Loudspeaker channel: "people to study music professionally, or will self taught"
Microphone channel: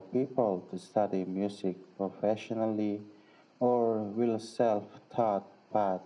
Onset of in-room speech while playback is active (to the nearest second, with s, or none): none